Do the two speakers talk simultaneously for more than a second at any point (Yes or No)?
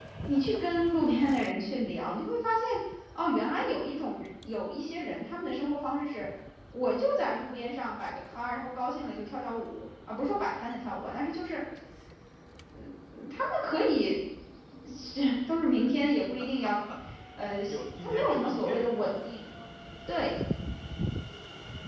Yes